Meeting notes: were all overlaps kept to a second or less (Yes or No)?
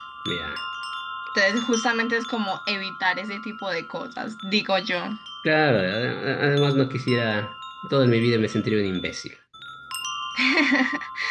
Yes